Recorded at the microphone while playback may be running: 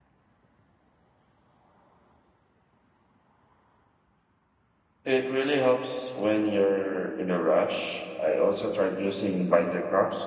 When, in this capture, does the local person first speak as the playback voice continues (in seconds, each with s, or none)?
5.0 s